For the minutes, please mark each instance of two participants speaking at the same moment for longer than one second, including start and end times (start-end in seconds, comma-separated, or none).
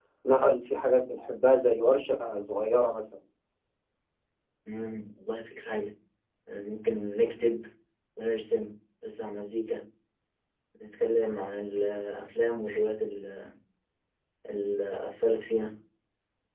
none